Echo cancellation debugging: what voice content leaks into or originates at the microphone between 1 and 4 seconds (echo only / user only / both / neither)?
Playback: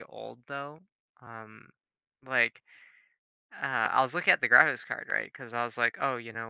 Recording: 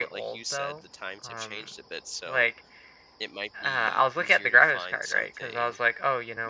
both